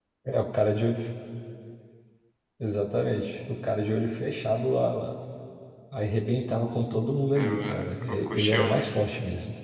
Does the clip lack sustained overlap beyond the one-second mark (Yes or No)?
No